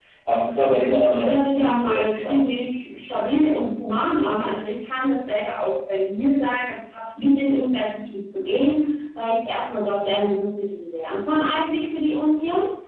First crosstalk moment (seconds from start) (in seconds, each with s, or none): 1.1 s